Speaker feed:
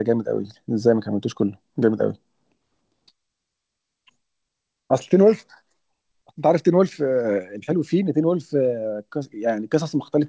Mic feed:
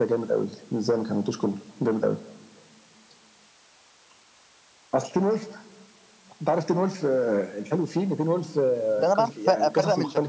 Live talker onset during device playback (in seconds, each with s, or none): 9.0 s